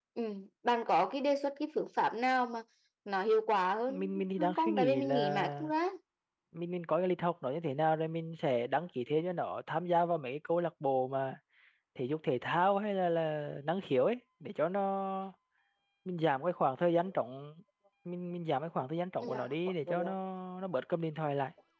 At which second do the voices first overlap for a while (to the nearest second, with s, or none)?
4 s